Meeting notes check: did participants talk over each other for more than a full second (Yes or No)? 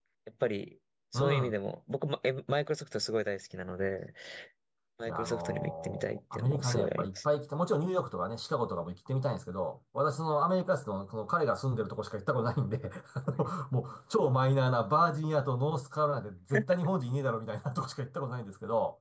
Yes